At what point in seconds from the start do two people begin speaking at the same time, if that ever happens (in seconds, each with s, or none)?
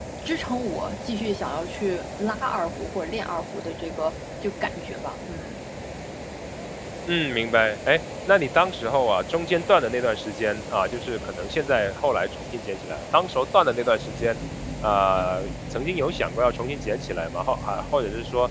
none